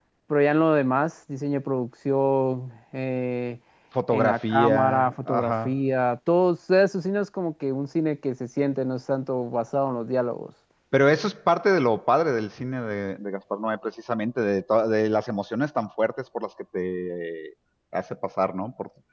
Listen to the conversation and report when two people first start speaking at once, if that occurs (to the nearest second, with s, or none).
4 s